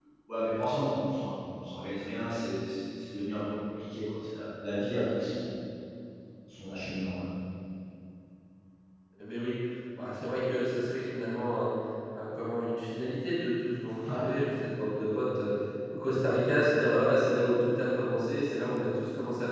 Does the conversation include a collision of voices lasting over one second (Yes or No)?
No